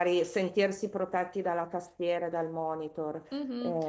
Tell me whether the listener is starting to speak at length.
Yes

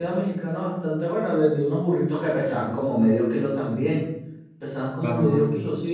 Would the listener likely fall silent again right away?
No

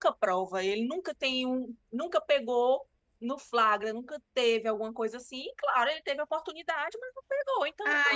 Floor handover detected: Yes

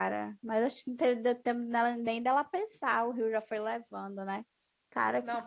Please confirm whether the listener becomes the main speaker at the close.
Yes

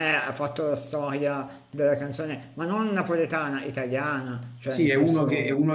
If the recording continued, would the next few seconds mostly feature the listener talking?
Yes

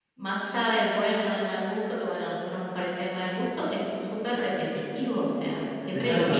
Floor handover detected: Yes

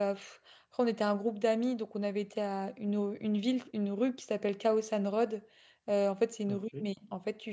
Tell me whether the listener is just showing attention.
Yes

